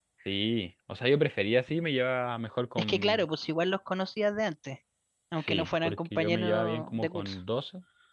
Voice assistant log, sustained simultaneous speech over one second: present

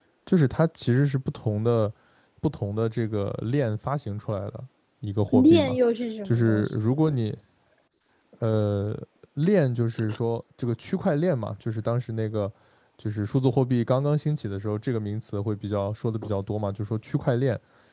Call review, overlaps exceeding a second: none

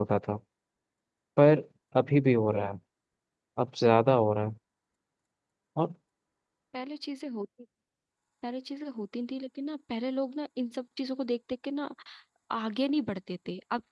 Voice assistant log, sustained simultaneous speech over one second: none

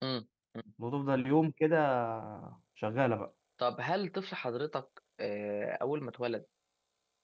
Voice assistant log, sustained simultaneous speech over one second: none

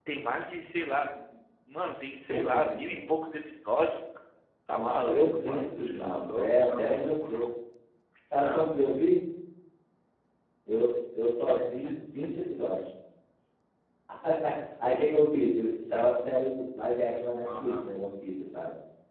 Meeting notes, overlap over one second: present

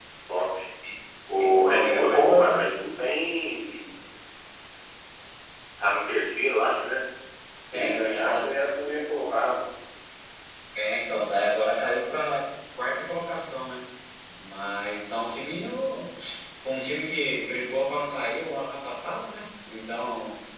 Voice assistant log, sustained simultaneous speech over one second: present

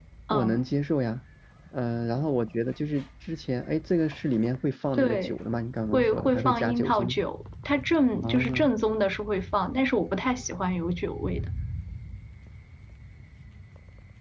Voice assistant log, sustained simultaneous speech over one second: present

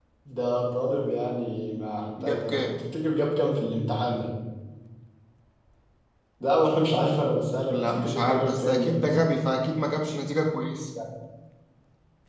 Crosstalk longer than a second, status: present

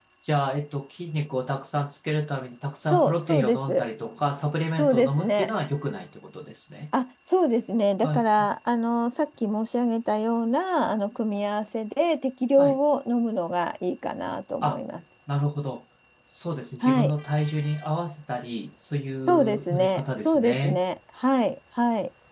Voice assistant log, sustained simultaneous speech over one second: present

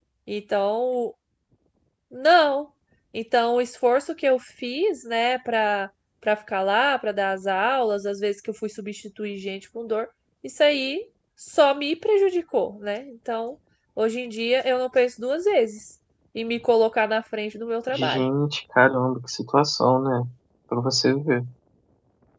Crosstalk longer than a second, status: none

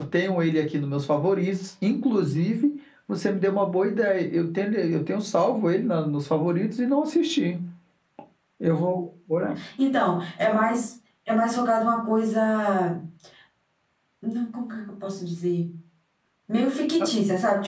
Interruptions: none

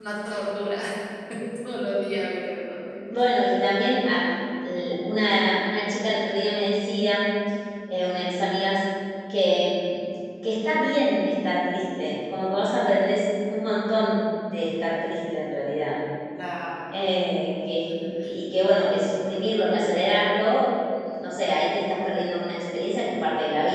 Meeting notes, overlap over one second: none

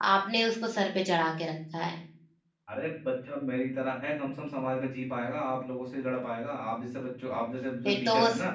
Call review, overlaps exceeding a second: none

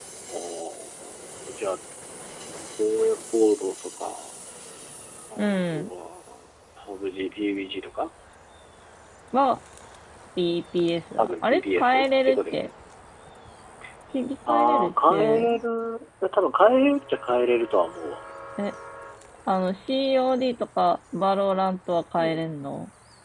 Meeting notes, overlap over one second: present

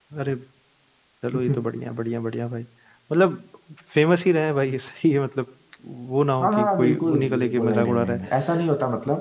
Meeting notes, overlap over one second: present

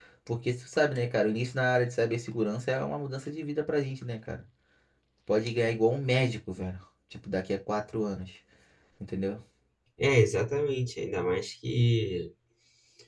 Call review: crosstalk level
none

